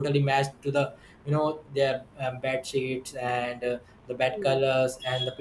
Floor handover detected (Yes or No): No